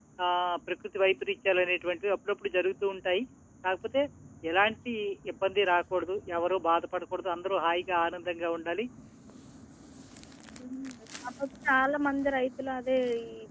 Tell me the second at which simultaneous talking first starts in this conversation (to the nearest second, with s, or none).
none